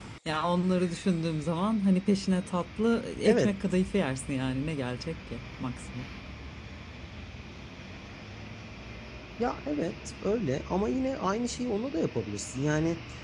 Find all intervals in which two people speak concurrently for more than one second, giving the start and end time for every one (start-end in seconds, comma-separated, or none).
none